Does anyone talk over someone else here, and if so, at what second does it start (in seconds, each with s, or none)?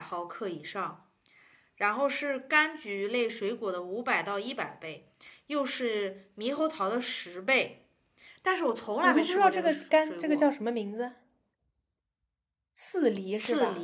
9.0 s